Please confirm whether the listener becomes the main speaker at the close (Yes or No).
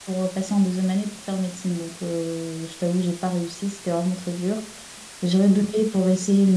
No